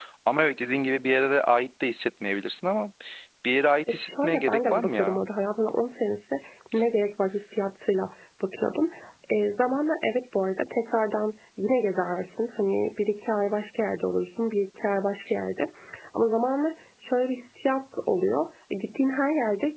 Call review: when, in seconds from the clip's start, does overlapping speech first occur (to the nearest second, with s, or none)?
4 s